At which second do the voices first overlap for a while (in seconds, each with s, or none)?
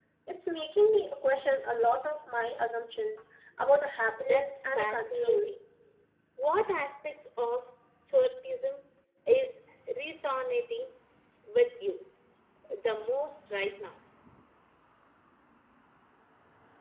4.1 s